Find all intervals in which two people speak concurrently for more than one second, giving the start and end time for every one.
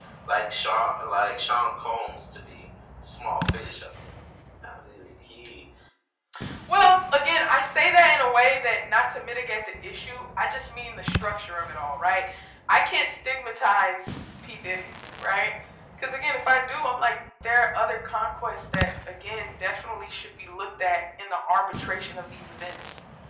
none

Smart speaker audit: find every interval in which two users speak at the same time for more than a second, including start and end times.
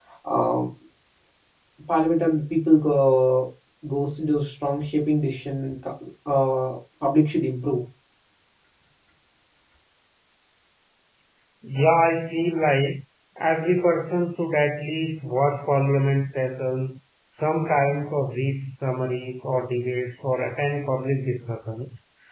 none

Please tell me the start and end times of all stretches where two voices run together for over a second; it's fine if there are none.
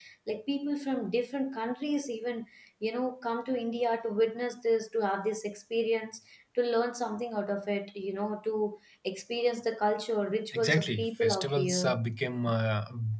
10.5-12.0

